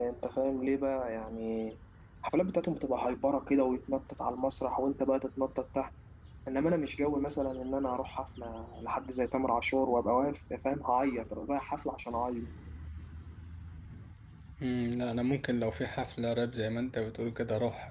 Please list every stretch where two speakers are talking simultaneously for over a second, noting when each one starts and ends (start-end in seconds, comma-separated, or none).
none